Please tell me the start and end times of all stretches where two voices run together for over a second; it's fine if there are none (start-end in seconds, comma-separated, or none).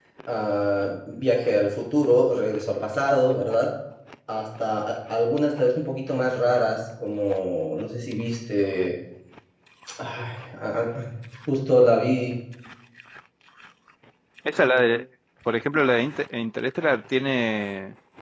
none